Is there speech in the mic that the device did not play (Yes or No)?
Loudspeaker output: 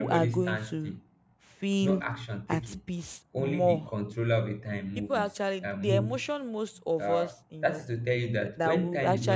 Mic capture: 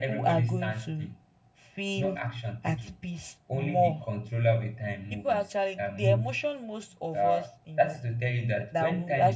No